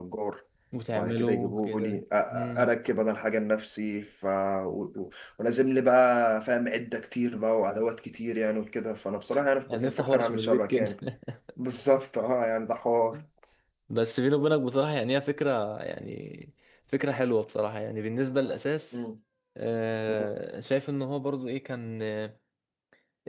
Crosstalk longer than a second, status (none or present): present